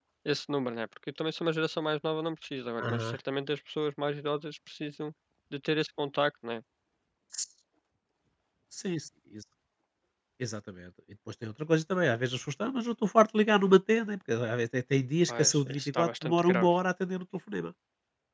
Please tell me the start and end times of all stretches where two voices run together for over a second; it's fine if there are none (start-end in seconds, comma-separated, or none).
15.3-16.7